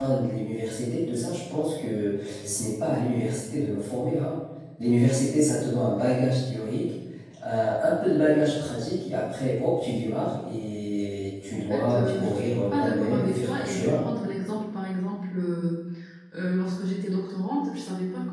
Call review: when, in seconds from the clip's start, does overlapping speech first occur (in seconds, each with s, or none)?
11.5 s